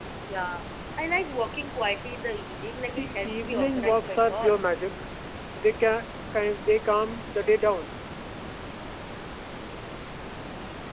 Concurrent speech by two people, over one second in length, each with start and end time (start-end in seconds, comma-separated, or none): 2.9-4.7